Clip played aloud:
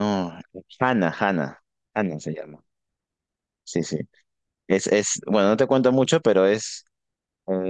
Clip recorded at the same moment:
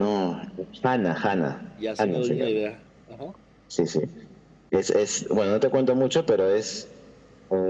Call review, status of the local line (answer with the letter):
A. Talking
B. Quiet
A